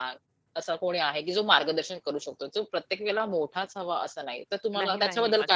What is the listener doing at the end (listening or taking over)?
taking over